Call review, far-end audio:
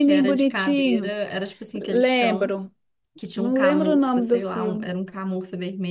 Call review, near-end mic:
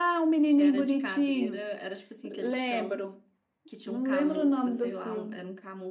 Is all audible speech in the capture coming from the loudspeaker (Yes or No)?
Yes